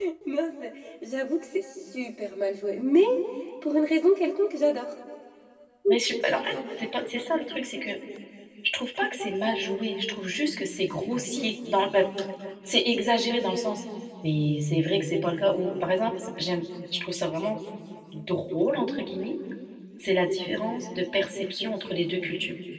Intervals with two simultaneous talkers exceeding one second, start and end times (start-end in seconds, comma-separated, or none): none